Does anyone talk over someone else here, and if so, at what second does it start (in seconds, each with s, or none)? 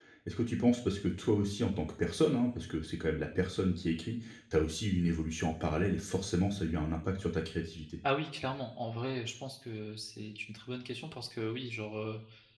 none